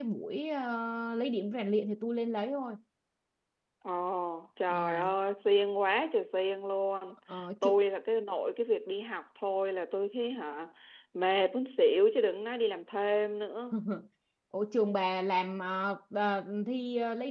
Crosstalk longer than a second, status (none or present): none